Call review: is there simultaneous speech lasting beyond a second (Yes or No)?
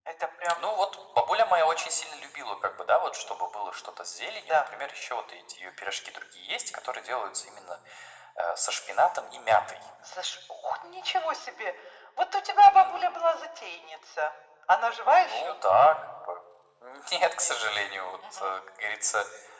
No